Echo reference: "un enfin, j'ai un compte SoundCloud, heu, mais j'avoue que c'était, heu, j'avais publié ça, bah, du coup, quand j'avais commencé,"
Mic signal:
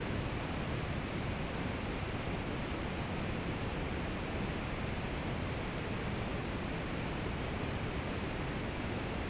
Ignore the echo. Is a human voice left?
No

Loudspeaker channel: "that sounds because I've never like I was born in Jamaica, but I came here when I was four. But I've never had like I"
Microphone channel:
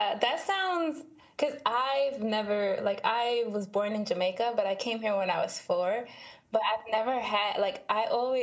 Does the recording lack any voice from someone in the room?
Yes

